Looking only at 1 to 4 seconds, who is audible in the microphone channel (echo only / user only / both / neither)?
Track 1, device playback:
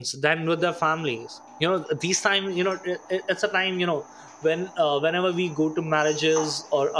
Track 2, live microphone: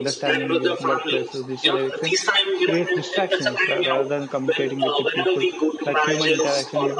both